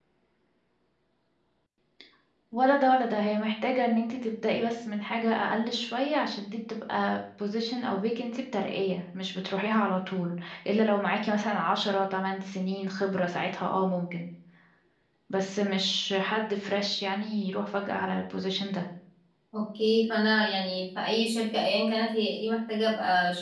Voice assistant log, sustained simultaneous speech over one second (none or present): none